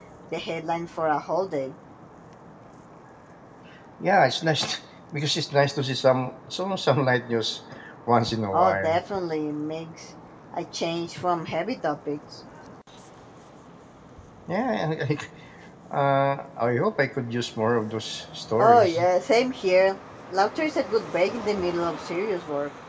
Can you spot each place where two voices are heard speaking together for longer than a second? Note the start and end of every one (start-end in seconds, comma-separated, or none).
none